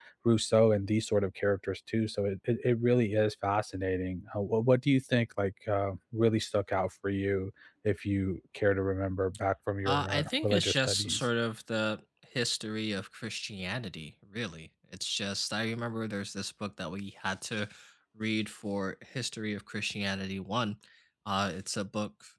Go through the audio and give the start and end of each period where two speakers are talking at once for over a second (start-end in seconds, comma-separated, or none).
9.8-11.3